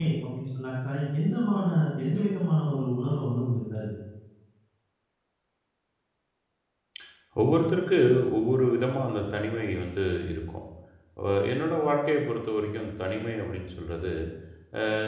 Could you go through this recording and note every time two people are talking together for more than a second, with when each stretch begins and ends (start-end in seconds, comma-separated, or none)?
none